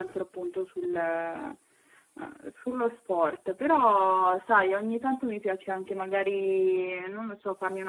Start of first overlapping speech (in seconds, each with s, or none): none